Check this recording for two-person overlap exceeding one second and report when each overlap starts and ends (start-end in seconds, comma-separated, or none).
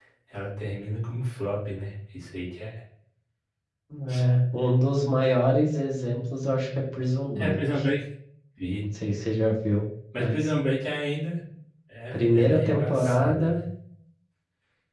12.1-13.5